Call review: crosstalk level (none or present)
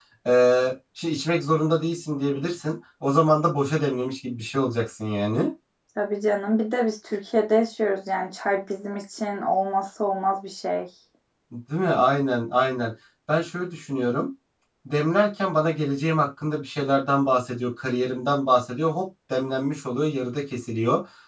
none